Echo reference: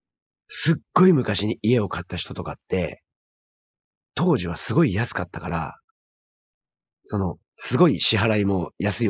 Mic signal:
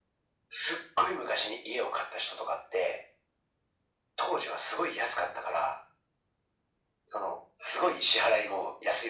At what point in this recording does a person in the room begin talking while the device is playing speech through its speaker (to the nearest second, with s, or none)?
none